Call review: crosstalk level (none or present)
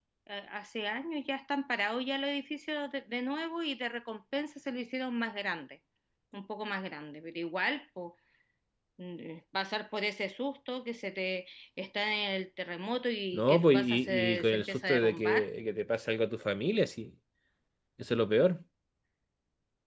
present